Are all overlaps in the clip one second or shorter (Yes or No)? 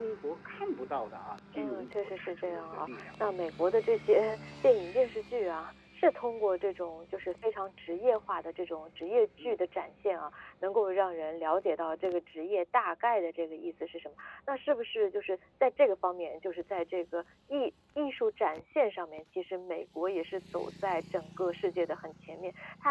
No